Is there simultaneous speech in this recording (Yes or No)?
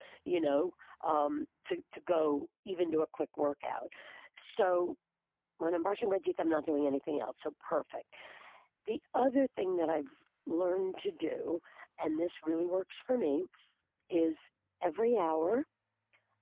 No